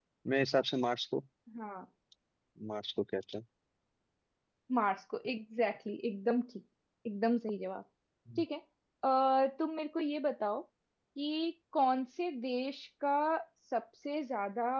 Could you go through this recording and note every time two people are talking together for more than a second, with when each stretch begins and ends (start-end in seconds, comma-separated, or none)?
none